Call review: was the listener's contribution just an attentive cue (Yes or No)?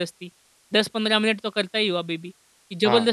No